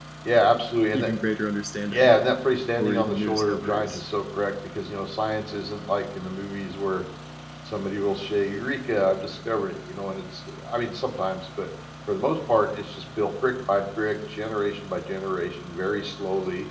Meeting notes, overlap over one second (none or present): present